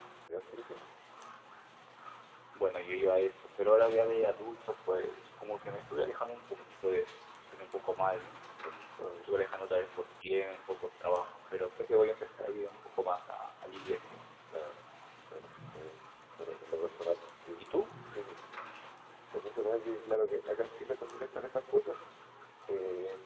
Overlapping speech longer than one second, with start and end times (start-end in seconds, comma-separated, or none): none